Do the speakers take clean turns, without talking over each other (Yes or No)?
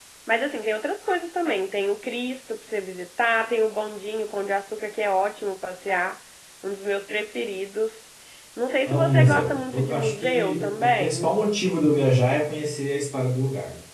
No